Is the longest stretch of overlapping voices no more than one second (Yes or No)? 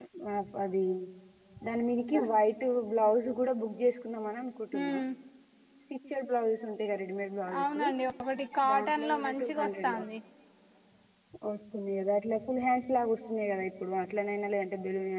No